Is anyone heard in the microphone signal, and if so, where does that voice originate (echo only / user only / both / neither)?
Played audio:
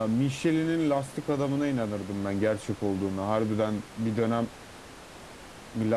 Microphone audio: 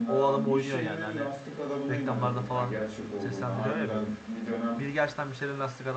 both